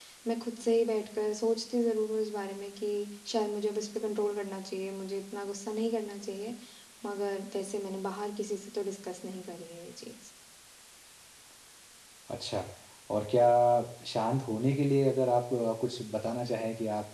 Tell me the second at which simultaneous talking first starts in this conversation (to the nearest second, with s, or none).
none